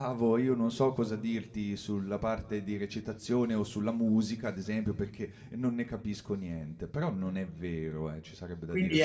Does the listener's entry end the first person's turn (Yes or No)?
Yes